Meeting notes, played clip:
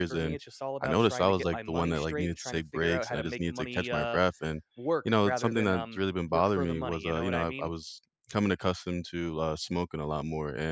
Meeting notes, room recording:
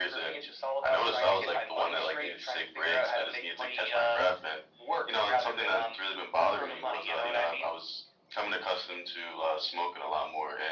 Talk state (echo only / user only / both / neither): echo only